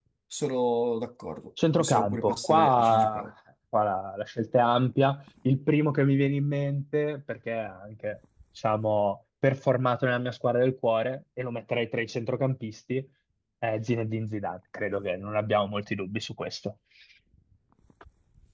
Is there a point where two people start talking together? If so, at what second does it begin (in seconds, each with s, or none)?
1.8 s